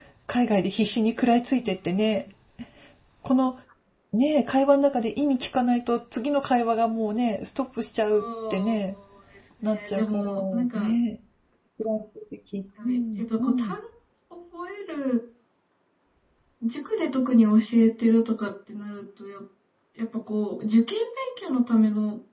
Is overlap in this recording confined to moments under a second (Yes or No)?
No